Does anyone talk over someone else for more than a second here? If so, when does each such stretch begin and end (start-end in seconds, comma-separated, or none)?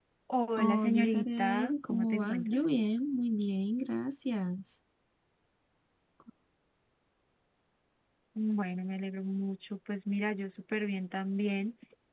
0.6-2.6